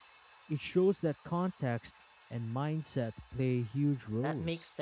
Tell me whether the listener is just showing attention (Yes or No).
No